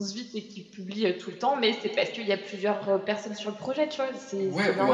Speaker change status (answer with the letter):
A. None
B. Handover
B